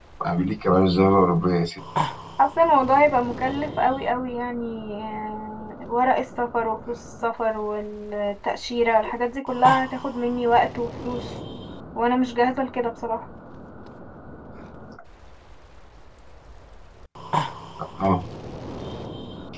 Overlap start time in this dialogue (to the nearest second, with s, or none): none